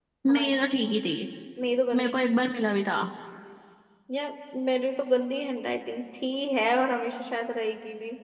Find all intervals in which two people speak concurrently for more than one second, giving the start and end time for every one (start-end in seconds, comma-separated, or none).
none